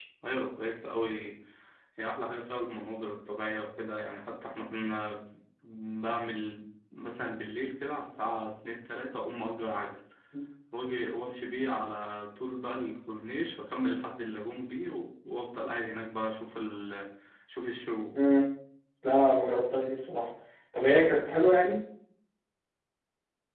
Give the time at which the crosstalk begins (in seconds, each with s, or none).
none